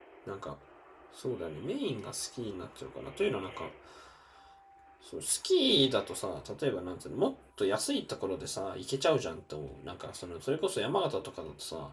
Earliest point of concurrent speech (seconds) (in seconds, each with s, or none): none